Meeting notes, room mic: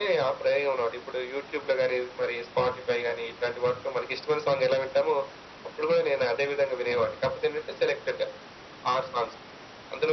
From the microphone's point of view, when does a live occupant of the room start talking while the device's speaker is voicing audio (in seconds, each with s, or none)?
none